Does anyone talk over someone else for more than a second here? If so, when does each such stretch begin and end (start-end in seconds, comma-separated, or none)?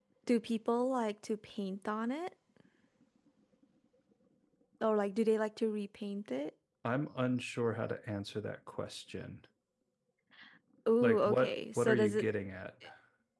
11.0-12.2